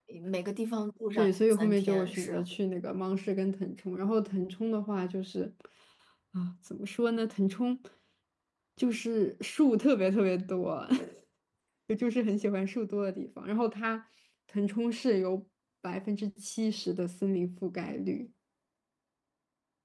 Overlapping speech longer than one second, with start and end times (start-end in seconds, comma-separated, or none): 1.2-2.4